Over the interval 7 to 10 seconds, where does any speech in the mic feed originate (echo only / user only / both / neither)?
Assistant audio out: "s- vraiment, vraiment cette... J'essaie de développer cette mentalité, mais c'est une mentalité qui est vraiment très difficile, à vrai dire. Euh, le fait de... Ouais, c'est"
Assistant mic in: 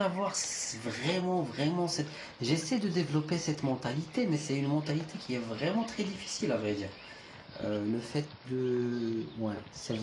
echo only